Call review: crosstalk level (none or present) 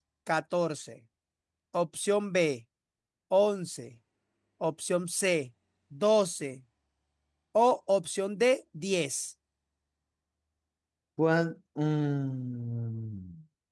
none